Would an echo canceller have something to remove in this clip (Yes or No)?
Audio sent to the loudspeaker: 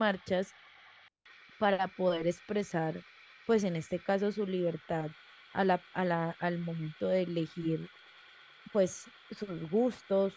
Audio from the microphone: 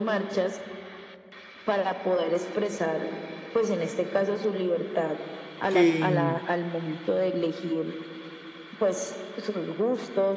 Yes